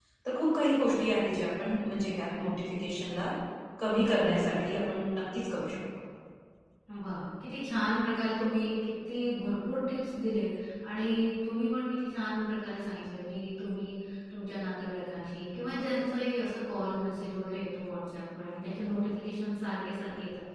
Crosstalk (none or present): none